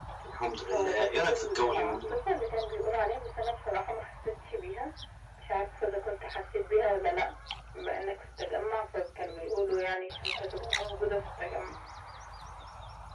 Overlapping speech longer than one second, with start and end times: 0.7-2.1

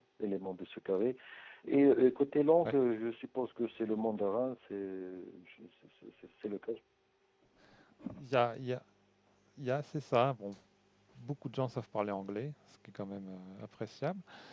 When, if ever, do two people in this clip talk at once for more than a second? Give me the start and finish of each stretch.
none

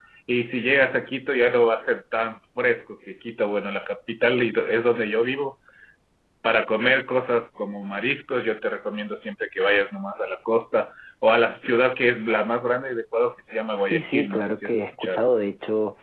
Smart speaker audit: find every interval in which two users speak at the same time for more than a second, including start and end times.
13.9-15.2

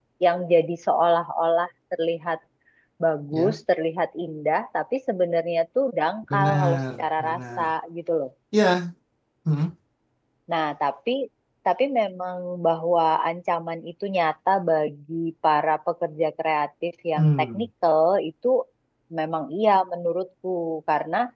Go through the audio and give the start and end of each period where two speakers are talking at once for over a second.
6.3-7.6

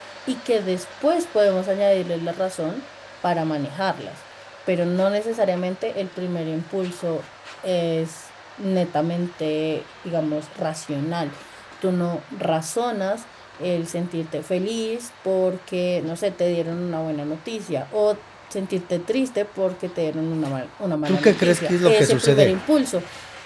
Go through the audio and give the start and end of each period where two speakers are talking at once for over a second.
21.1-22.6

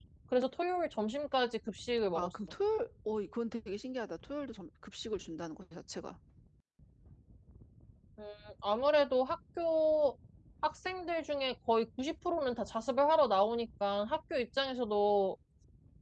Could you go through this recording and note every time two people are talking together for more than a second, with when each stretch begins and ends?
none

